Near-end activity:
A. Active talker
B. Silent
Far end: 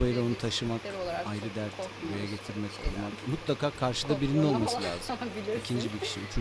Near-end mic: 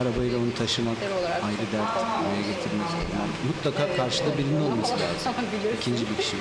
A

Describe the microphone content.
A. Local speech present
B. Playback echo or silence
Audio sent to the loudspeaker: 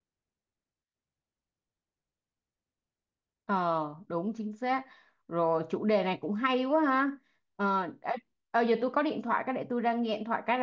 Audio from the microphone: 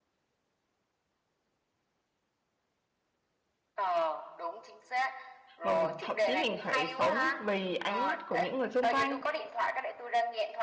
A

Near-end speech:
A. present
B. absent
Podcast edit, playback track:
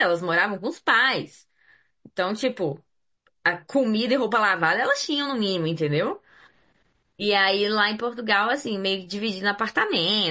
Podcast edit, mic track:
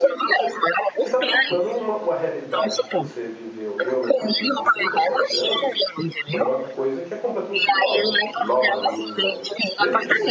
A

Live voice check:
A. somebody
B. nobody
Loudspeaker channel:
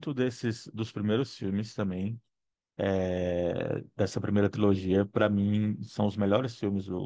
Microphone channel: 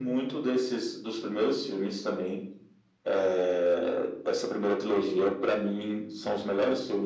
B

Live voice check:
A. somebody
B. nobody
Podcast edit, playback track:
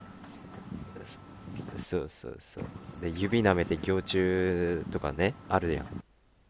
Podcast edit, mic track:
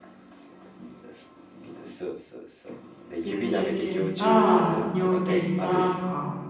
A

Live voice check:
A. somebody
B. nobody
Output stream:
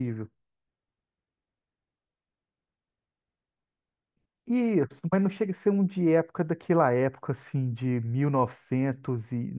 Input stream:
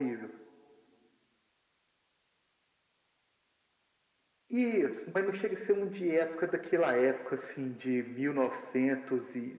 B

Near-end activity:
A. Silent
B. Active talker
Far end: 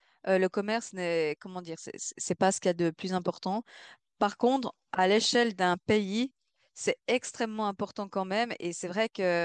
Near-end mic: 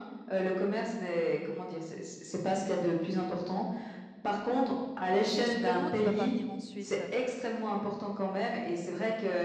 B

